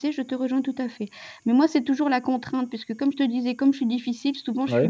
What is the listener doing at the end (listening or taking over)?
listening